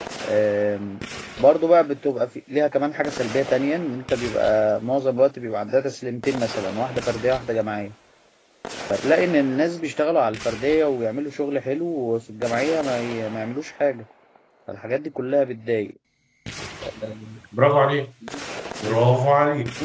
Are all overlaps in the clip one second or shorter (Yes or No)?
Yes